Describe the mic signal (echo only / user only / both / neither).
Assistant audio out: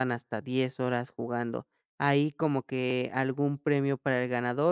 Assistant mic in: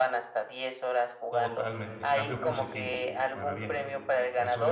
both